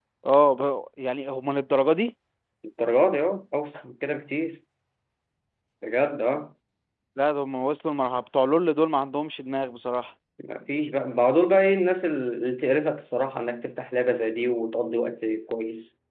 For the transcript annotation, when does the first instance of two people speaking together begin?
none

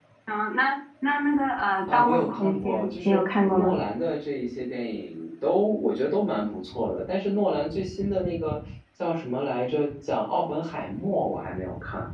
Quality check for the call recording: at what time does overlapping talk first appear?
1.9 s

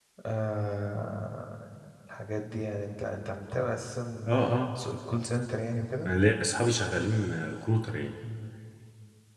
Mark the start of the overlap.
none

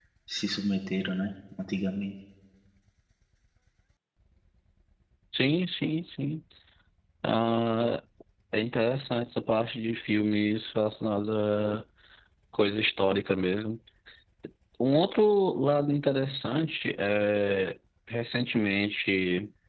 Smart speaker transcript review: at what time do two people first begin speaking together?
none

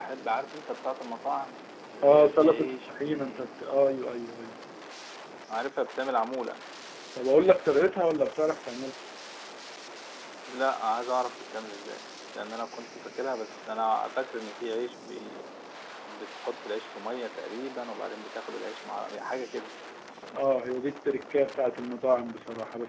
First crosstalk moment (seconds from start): 2.0 s

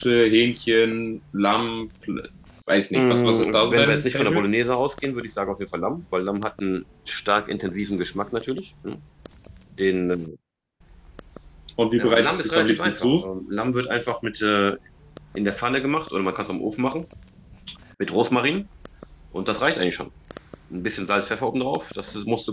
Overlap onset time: 2.9 s

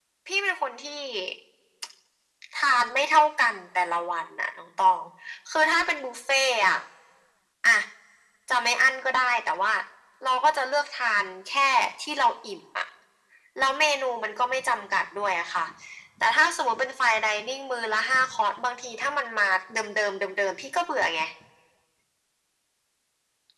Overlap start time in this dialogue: none

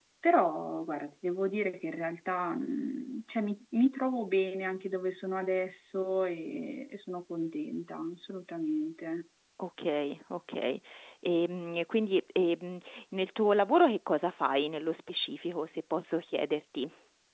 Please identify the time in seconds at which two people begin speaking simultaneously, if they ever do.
none

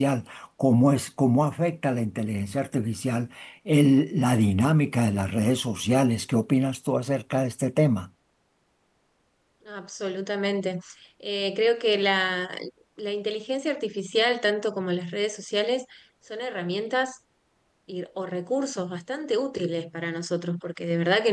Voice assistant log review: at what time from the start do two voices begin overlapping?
none

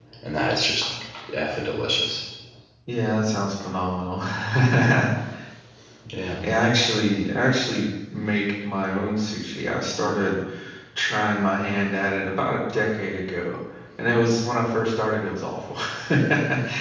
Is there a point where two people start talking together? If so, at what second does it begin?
none

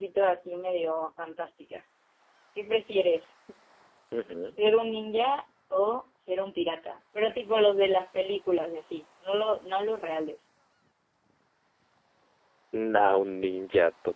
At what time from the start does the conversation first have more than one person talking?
none

